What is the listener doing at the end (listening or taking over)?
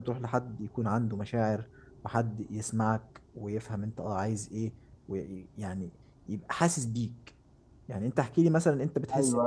taking over